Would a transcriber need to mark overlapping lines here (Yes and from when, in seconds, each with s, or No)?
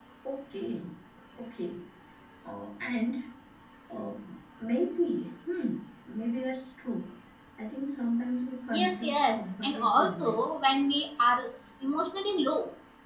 Yes, from 8.7 s